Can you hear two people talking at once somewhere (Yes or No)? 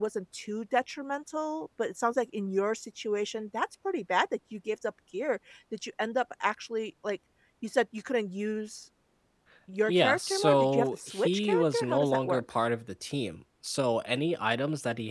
Yes